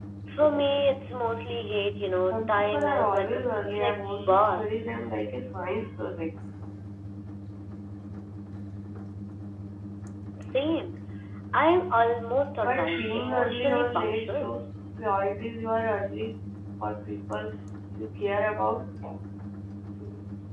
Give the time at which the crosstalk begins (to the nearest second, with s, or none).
2 s